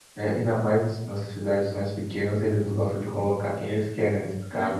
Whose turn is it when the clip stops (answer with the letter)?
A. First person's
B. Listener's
B